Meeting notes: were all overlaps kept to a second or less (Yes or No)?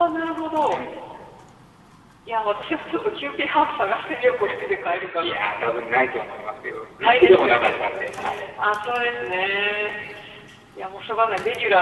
No